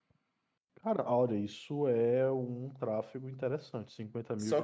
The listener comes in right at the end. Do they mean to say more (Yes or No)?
Yes